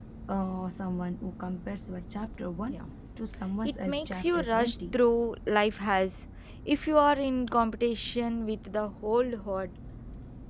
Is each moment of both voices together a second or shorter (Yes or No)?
No